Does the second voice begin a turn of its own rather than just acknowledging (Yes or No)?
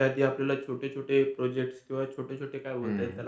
No